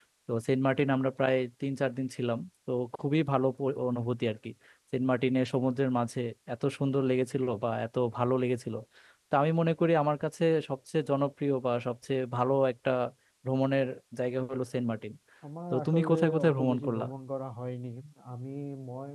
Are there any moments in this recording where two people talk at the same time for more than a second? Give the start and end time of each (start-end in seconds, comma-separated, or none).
15.7-17.0